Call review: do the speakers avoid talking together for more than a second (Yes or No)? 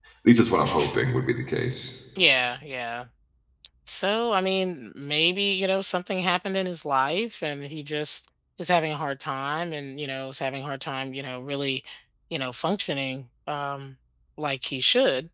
Yes